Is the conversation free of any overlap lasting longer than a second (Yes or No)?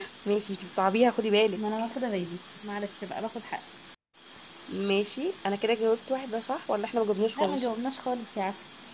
Yes